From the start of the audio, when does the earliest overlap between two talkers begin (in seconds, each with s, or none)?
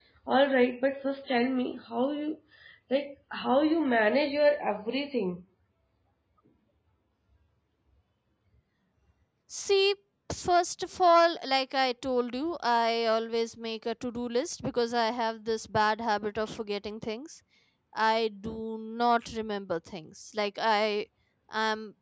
none